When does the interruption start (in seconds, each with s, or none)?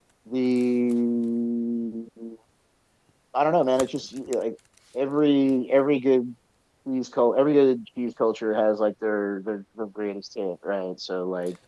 none